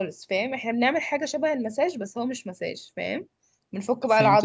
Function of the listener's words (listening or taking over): taking over